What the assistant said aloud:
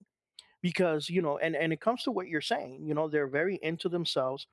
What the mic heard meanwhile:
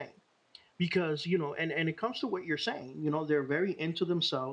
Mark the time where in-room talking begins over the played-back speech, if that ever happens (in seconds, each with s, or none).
none